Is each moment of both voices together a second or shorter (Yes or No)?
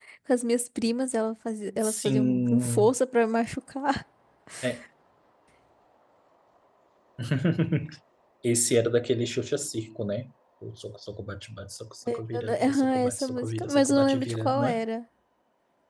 No